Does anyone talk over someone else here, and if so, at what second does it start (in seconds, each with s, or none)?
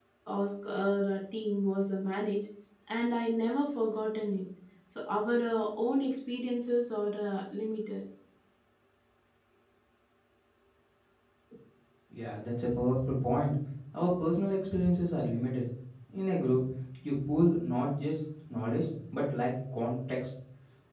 none